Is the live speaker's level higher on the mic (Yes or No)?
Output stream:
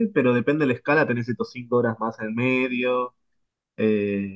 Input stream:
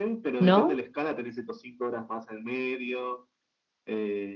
Yes